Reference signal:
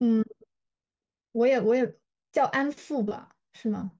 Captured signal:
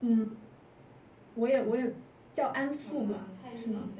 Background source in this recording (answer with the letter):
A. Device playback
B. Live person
B